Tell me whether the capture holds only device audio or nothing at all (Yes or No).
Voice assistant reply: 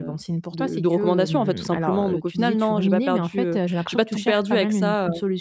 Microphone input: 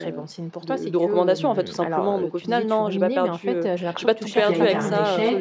No